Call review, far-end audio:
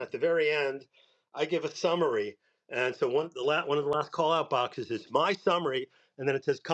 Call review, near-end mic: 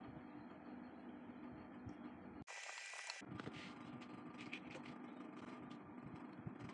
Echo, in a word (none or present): none